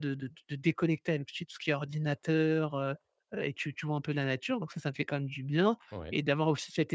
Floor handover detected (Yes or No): No